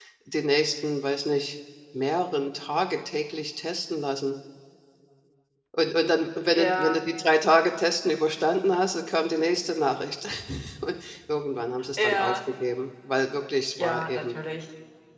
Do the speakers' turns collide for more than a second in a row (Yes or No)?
No